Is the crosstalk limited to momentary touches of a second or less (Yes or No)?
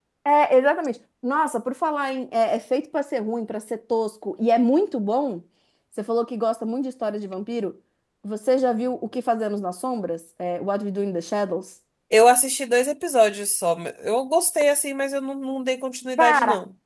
Yes